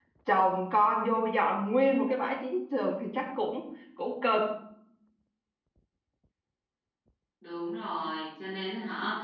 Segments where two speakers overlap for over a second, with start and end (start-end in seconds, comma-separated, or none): none